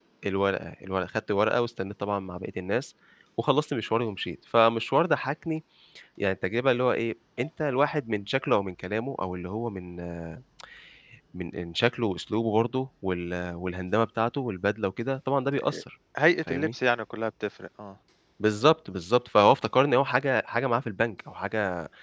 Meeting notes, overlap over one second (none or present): none